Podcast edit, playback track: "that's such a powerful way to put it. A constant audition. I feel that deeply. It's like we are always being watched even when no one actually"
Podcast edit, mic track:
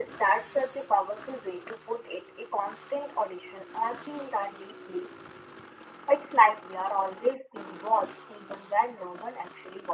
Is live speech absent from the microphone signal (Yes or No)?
Yes